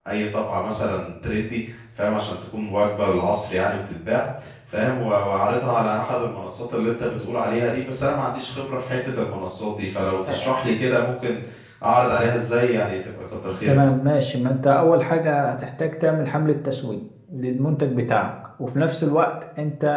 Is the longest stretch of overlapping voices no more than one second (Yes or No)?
Yes